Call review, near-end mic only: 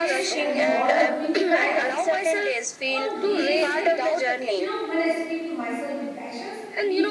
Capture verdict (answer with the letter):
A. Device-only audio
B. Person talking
B